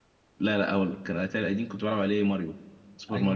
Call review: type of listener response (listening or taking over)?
taking over